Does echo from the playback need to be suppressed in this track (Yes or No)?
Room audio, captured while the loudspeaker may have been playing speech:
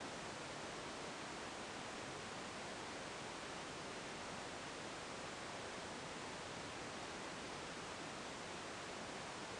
No